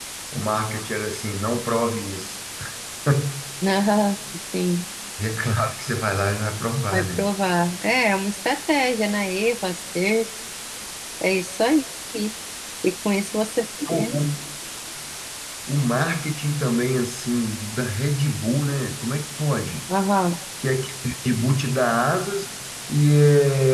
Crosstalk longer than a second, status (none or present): none